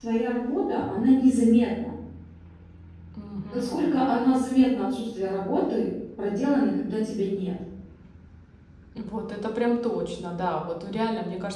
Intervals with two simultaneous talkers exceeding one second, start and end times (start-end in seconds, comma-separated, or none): none